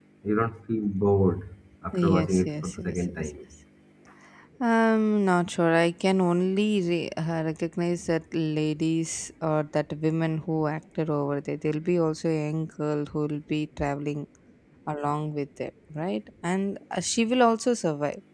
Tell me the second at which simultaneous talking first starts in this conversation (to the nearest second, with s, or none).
2 s